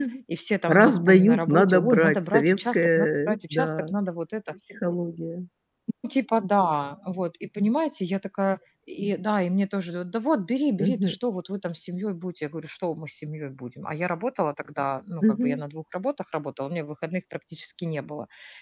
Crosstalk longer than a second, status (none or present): present